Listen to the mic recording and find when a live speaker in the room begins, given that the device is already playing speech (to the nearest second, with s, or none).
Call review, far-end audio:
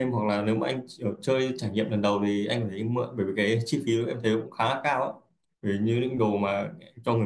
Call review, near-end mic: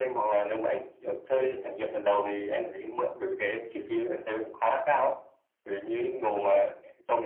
1 s